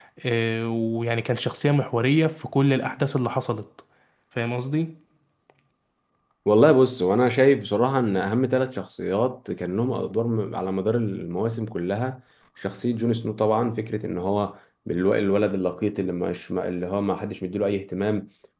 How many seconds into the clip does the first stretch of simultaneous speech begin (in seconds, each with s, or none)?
none